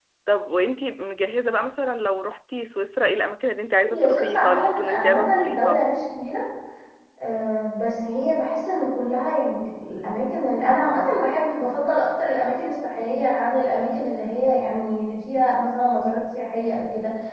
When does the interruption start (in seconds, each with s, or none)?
3.8 s